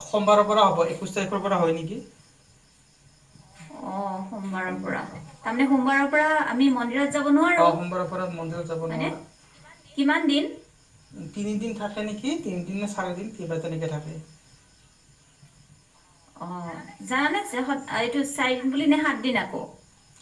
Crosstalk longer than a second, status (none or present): none